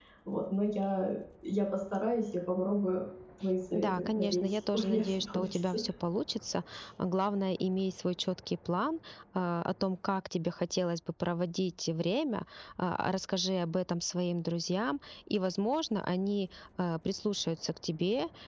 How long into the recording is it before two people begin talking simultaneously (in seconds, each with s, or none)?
3.7 s